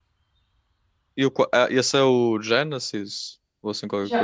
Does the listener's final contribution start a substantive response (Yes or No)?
Yes